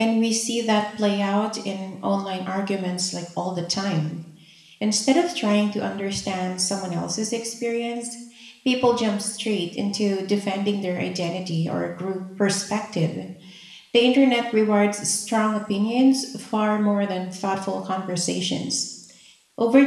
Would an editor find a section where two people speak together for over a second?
No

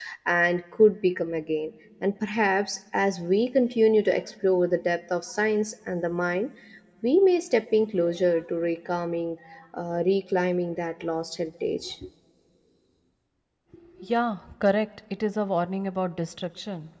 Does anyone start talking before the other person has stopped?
No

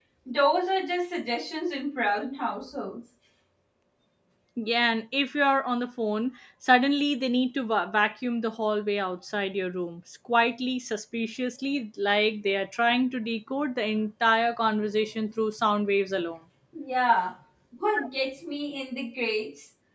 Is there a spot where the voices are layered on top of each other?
No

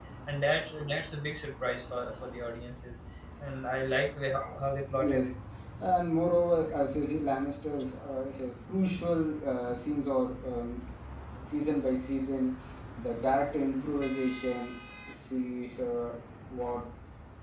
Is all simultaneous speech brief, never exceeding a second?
Yes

